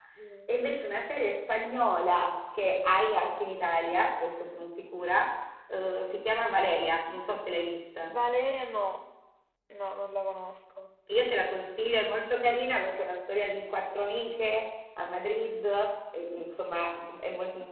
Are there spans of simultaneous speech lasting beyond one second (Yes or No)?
No